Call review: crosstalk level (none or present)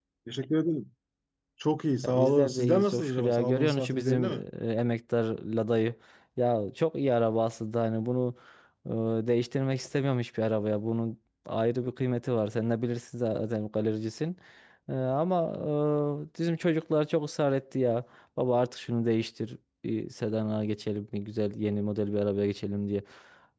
present